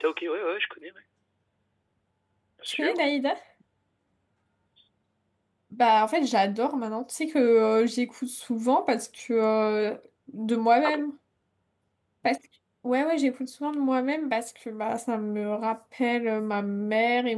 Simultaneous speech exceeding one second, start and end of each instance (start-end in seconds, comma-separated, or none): none